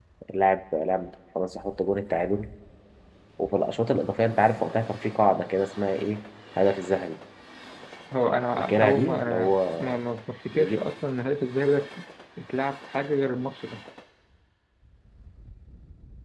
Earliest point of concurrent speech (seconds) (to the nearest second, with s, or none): 9 s